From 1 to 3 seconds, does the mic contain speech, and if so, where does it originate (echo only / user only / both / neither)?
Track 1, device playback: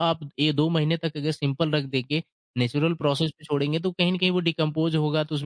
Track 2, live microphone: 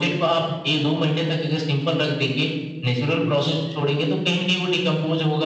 echo only